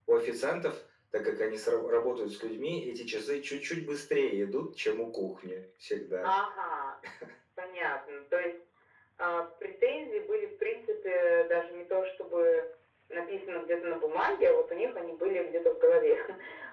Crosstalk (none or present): none